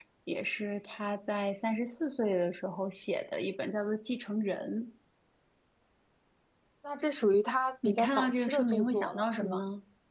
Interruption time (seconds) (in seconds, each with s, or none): 7.8 s